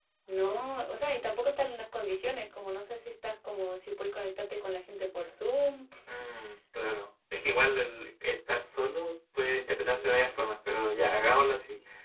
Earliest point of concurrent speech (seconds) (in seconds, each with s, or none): none